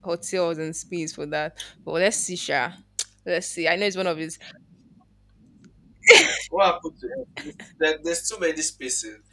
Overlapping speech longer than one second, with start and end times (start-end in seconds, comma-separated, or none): none